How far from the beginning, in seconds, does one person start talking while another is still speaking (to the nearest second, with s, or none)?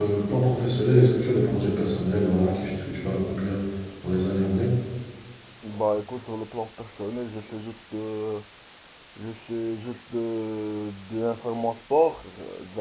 none